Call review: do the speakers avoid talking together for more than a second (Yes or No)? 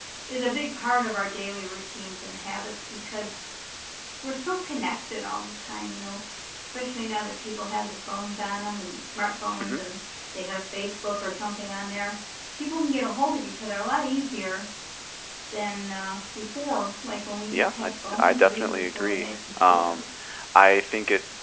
No